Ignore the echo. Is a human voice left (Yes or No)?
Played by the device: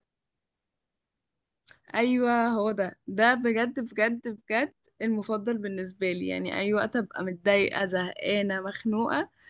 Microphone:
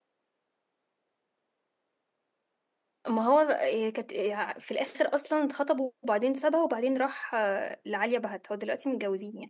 Yes